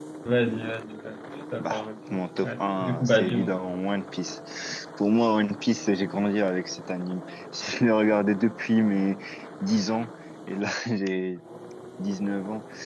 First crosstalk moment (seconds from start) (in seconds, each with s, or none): 1.6 s